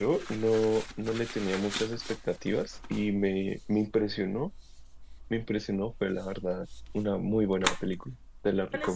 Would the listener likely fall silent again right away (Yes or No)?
No